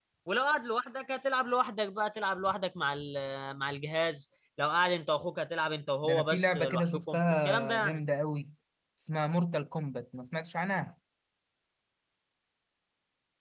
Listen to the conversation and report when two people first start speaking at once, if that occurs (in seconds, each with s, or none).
6.0 s